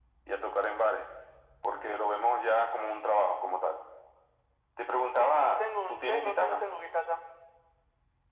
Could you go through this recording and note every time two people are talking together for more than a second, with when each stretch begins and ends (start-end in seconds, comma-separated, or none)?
5.2-6.6